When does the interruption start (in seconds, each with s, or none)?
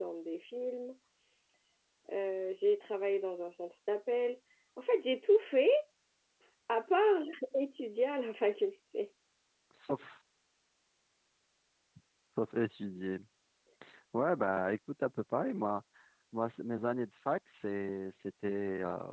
none